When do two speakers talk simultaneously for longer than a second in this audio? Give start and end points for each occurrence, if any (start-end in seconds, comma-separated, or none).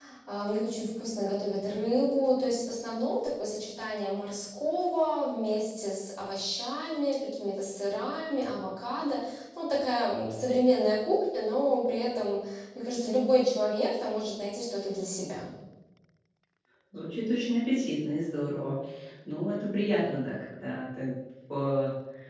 none